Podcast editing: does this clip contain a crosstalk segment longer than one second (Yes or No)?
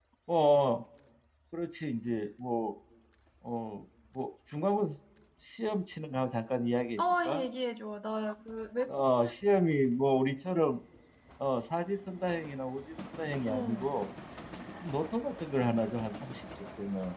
No